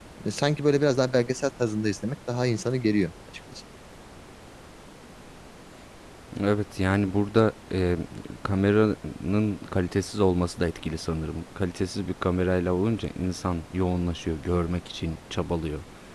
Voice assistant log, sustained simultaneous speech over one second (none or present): none